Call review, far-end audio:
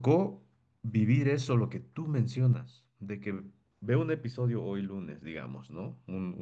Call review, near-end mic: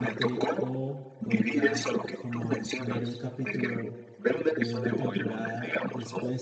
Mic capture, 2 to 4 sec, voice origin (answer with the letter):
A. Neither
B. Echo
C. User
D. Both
D